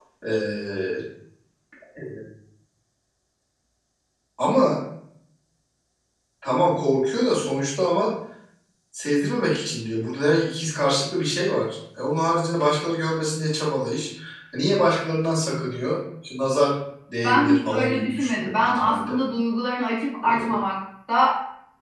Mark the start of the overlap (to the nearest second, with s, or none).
17 s